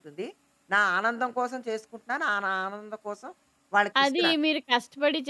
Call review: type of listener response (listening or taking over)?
taking over